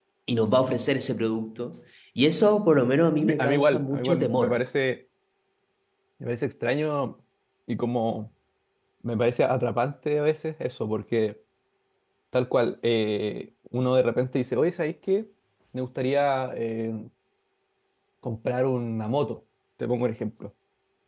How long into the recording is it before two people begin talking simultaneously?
3.2 s

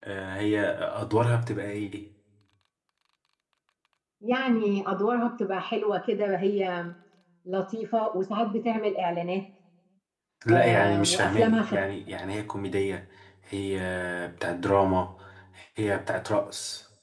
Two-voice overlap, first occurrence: 10.5 s

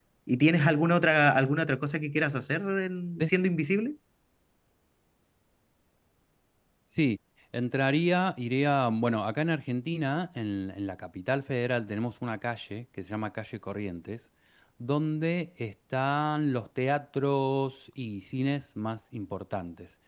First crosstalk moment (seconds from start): none

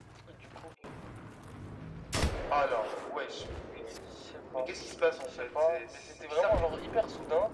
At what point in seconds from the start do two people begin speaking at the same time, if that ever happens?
5.3 s

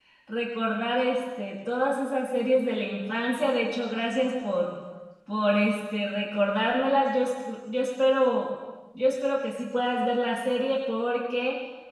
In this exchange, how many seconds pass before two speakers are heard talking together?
none

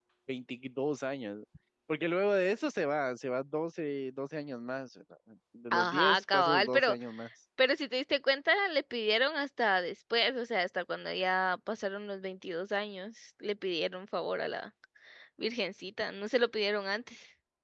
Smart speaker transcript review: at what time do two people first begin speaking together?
5.7 s

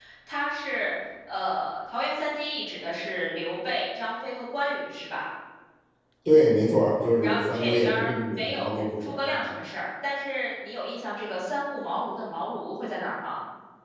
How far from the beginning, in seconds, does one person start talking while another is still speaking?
7.2 s

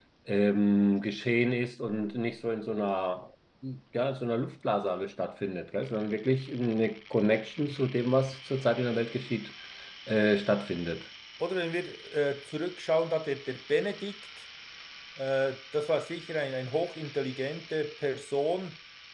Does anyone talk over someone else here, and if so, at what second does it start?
none

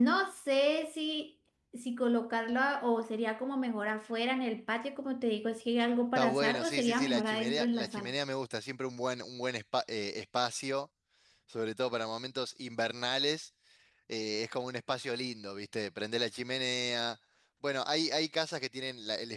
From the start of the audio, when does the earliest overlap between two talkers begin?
6.2 s

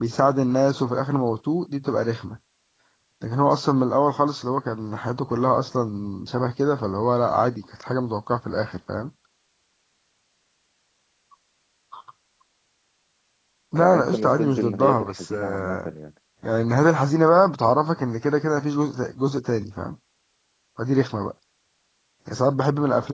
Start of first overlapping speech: 13.8 s

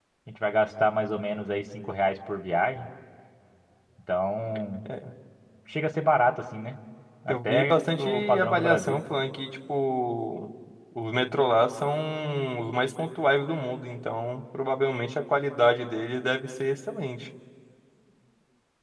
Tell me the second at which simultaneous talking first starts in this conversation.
7.3 s

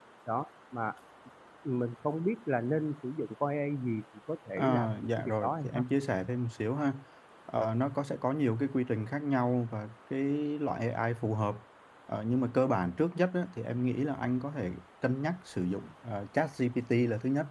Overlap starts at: 4.6 s

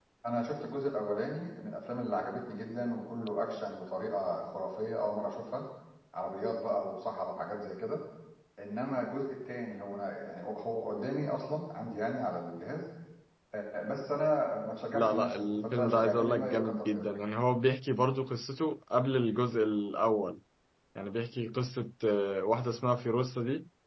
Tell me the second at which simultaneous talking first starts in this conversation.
14.9 s

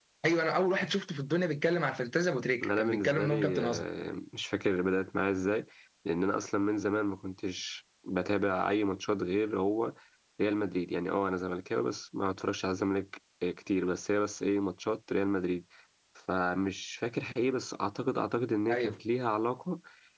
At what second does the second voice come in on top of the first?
2.6 s

